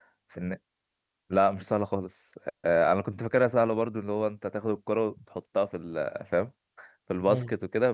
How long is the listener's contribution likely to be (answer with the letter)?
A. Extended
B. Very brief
B